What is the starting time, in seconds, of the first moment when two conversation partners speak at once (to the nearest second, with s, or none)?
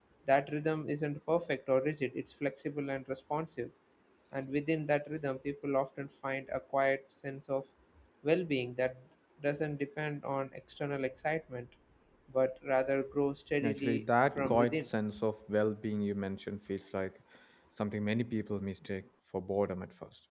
14 s